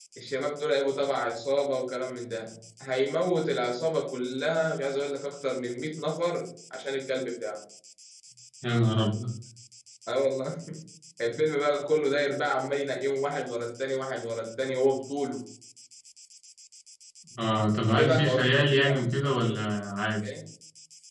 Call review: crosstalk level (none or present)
present